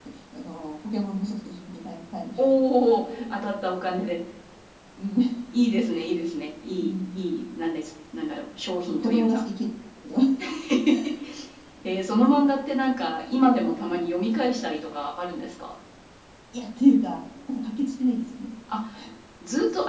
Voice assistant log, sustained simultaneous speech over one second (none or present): none